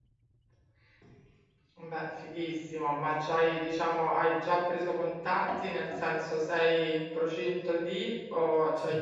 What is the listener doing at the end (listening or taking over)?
listening